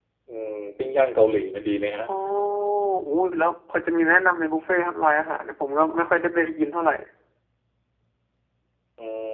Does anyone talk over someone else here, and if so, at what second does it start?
none

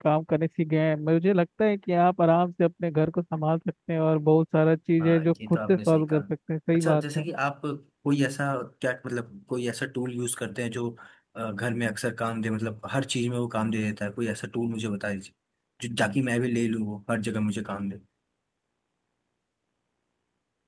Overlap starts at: 5.0 s

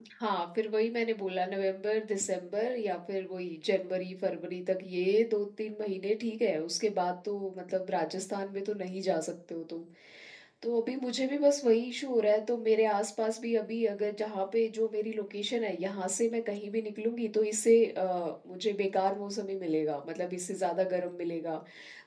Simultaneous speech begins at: none

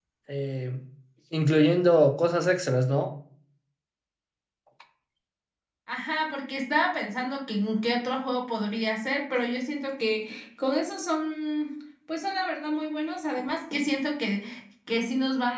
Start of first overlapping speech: none

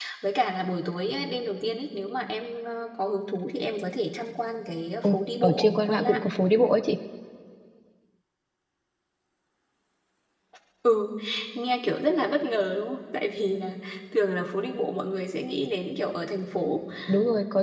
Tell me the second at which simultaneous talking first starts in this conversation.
5.0 s

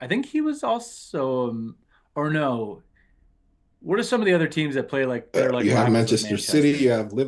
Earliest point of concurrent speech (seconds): 5.3 s

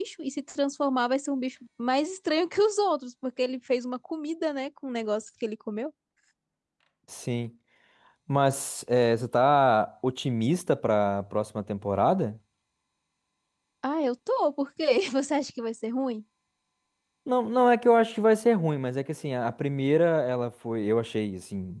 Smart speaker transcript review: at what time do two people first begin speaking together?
none

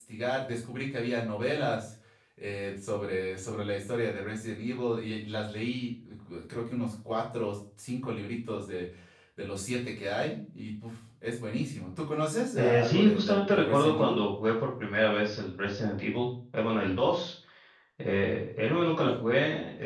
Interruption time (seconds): 12.6 s

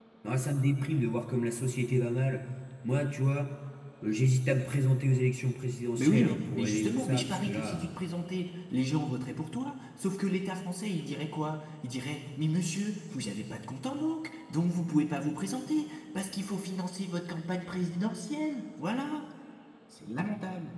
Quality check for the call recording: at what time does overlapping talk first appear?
6.0 s

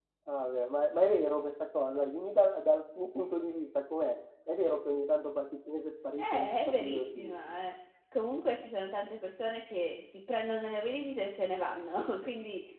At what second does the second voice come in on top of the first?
6.2 s

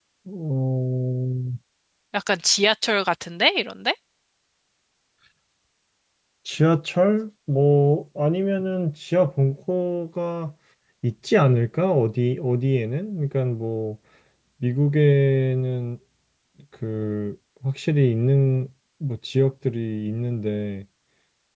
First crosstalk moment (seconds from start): none

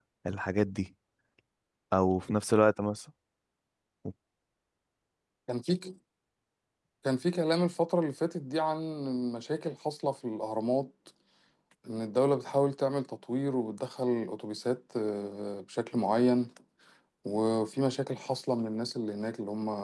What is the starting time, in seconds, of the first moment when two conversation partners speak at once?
none

